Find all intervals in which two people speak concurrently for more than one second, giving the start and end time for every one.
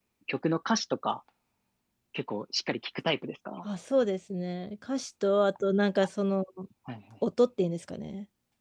none

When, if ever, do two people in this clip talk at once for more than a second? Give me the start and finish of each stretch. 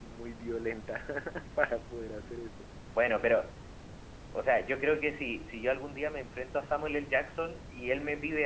none

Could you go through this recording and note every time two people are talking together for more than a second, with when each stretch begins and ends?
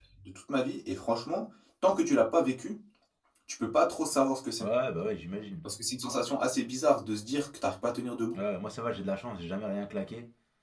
none

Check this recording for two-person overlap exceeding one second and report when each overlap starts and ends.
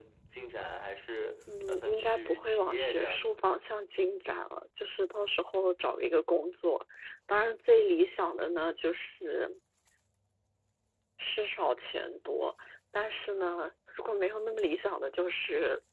1.7-3.3

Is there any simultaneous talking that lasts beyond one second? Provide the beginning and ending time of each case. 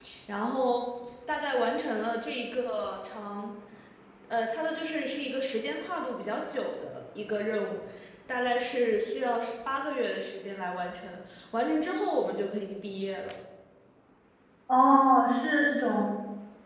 none

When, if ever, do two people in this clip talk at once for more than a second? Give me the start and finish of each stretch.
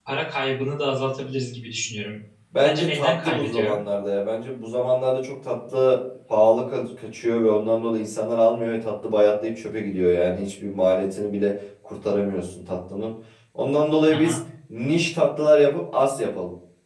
2.6-3.8

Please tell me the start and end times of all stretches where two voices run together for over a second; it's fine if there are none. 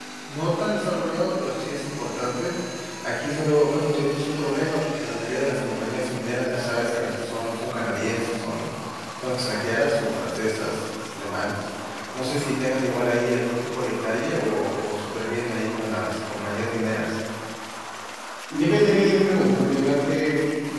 none

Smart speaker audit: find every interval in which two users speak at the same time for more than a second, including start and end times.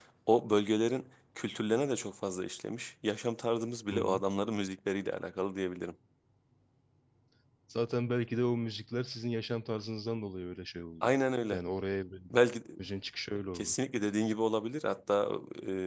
none

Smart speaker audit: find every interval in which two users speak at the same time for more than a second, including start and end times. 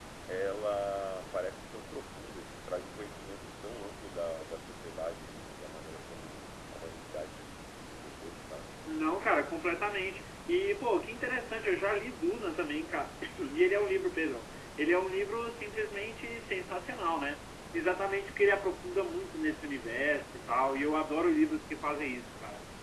none

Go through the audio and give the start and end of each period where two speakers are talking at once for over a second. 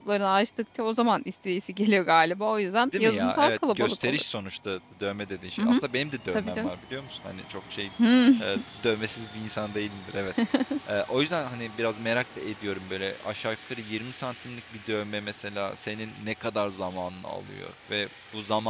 3.0-4.2

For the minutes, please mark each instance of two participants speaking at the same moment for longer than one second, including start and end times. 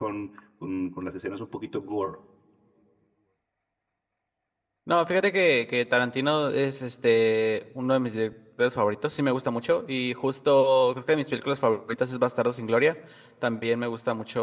none

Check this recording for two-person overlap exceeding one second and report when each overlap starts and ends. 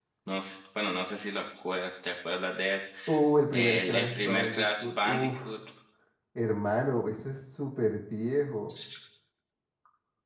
3.5-5.4

